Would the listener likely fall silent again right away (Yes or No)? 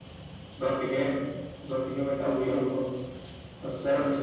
Yes